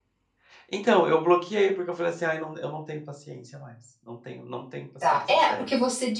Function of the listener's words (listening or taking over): taking over